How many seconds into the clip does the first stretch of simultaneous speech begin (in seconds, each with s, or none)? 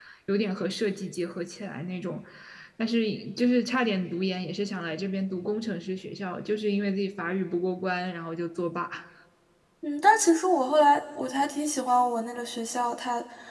none